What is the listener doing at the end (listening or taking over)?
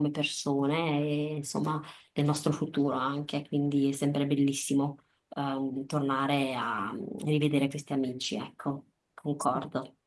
taking over